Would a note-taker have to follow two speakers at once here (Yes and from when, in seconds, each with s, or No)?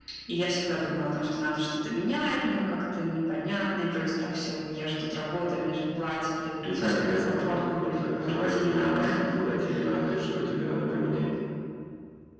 Yes, from 6.6 s